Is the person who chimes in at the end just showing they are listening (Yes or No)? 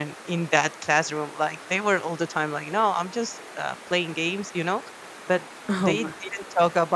Yes